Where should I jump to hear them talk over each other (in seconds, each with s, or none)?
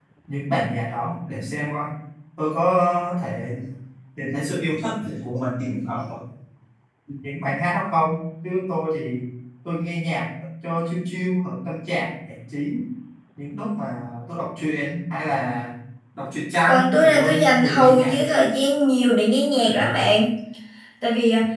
16.7 s